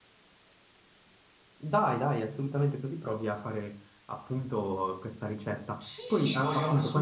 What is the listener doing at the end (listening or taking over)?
taking over